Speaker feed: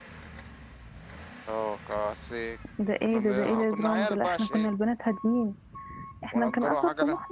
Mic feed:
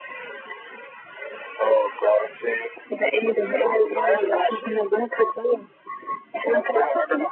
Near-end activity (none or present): none